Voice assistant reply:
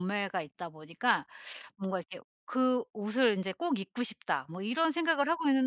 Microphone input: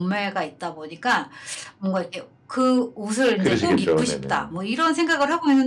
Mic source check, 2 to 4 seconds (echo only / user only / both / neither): both